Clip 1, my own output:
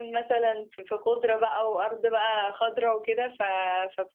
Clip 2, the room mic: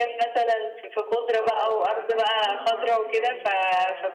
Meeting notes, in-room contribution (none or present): present